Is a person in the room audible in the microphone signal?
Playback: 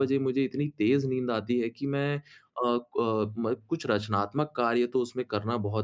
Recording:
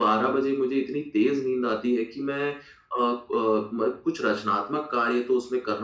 No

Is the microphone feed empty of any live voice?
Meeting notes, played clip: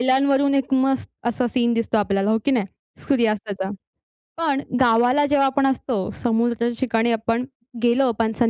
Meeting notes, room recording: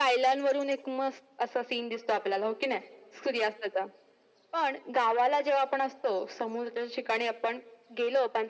Yes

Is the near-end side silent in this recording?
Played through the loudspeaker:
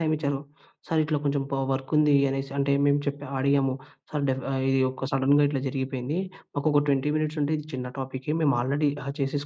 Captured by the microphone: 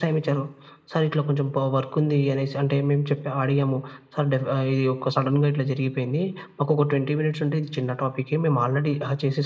Yes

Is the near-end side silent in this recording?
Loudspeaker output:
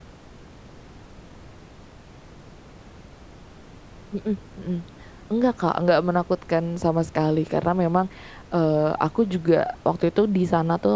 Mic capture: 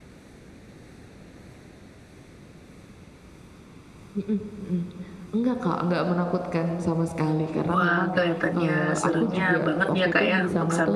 No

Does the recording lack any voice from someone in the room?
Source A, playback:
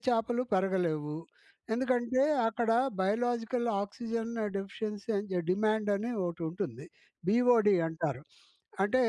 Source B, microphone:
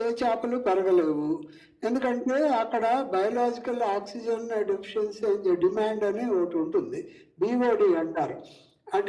Yes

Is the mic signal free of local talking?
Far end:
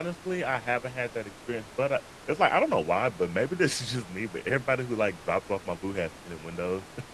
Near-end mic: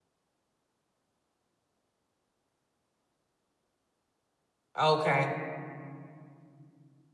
No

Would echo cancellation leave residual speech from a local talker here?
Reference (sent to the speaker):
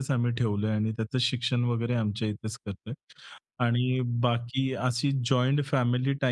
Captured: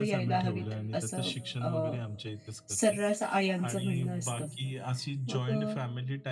Yes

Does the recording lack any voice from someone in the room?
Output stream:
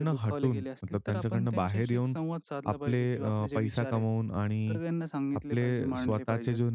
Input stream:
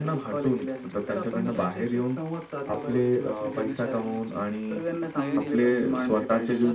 No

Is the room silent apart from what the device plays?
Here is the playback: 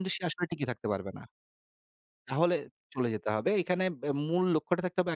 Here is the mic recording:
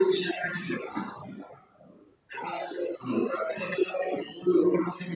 Yes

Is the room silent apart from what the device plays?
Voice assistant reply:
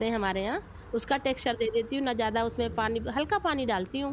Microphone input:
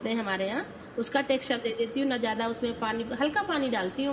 Yes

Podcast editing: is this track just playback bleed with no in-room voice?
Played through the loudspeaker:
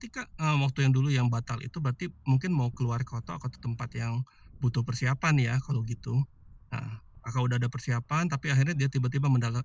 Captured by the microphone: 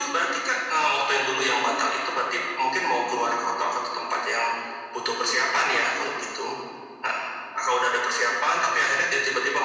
Yes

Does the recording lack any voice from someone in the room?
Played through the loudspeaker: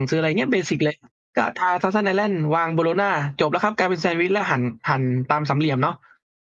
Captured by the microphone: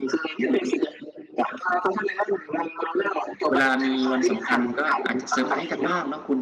No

